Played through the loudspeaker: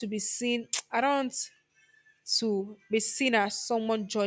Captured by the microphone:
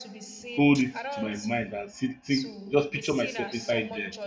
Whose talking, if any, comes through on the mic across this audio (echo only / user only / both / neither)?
both